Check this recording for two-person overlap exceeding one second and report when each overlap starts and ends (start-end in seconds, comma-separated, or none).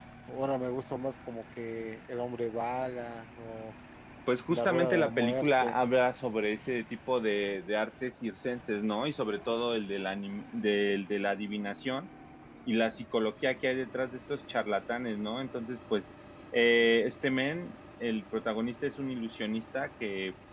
4.5-5.8